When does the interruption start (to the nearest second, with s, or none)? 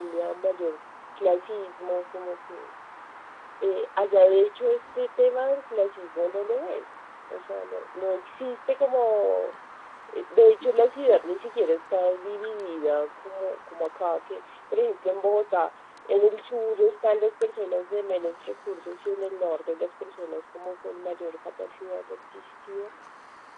none